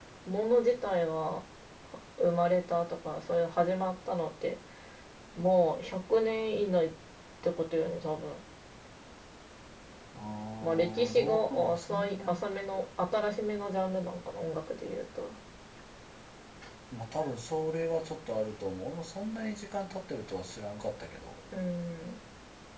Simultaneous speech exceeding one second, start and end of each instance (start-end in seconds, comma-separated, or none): 10.6-12.4